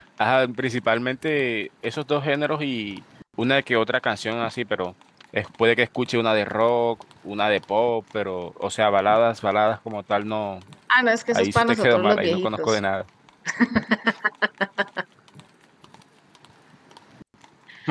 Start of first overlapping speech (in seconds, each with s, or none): 11.3 s